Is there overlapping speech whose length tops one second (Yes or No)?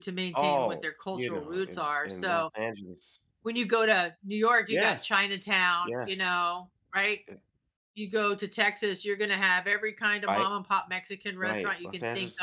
Yes